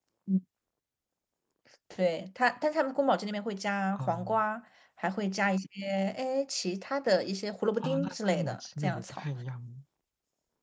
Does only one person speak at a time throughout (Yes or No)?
No